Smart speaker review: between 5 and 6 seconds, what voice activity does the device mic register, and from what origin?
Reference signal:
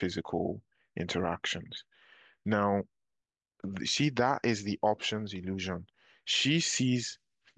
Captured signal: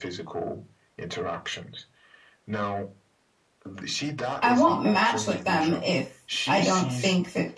both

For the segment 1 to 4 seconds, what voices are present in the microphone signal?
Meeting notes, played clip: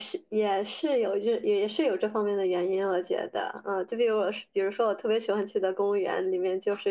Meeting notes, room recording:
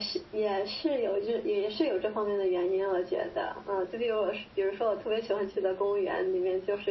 echo only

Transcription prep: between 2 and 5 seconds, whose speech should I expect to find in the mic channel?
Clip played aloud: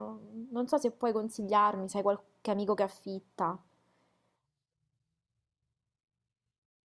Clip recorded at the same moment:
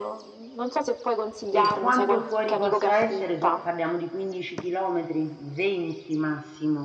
both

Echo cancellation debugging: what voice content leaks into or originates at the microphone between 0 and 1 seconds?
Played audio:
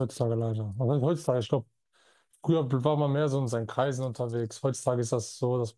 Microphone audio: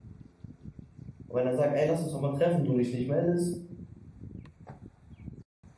neither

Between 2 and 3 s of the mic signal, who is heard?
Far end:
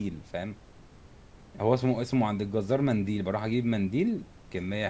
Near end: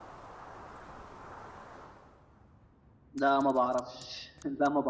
neither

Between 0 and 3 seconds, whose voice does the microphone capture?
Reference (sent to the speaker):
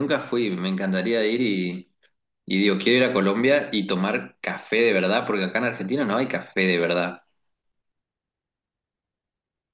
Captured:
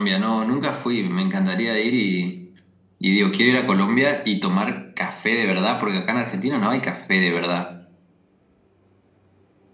echo only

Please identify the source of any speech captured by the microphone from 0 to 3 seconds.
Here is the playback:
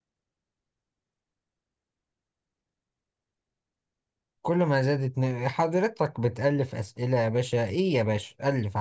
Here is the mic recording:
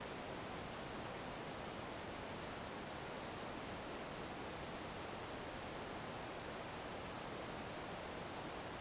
neither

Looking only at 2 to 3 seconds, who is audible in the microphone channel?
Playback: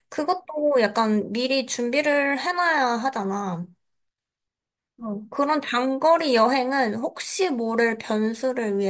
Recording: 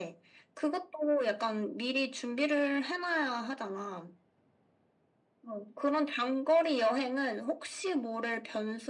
echo only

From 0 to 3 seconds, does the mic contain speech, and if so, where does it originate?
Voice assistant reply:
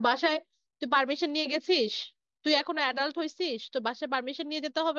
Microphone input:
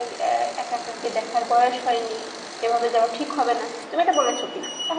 user only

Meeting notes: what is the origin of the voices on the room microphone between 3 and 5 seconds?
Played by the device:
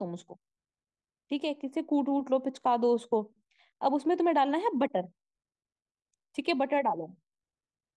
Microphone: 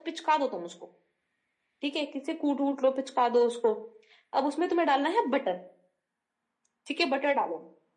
echo only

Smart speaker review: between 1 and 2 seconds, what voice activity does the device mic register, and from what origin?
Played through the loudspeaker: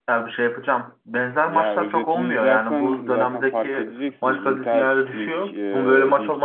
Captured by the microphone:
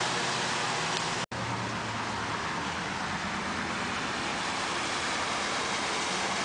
neither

